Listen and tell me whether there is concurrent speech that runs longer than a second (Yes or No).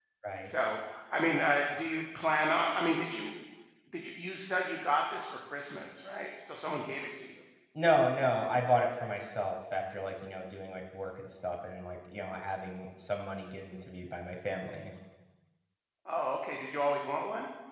No